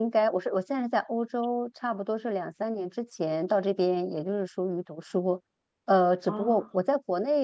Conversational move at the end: listening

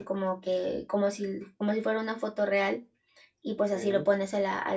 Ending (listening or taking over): listening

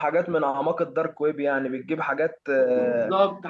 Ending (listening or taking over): taking over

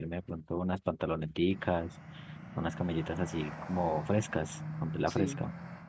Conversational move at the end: taking over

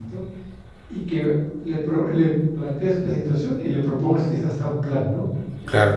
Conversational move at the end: listening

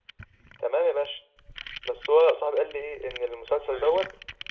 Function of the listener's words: listening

